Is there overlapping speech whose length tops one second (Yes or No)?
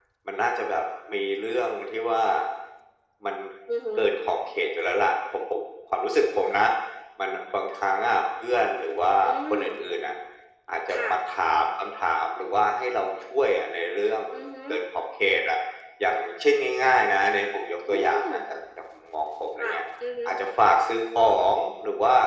No